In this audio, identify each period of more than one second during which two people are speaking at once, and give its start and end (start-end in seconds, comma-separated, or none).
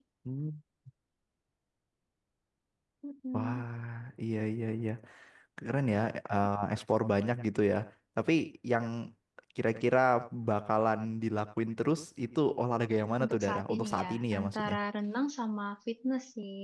13.2-14.8